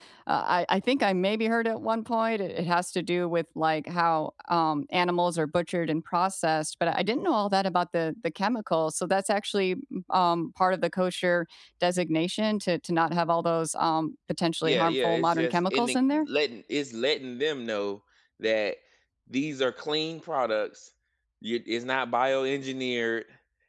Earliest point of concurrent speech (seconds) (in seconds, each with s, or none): 14.6 s